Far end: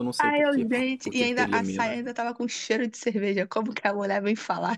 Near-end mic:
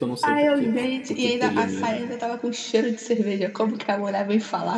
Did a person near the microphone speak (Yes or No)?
No